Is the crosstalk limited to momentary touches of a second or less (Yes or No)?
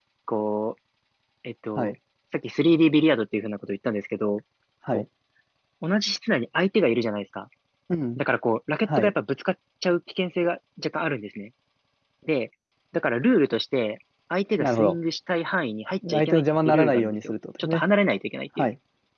No